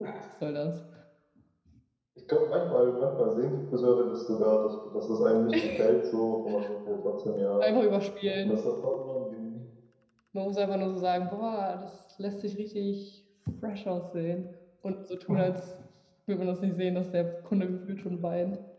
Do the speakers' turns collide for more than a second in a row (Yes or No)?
No